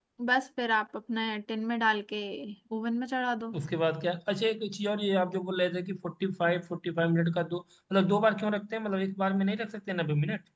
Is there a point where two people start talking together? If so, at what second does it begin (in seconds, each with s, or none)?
none